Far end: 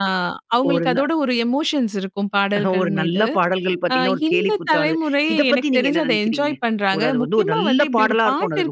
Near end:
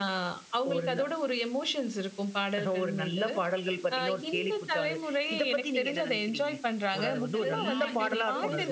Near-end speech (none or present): present